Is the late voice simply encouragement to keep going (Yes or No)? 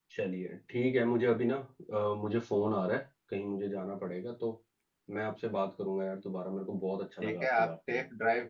No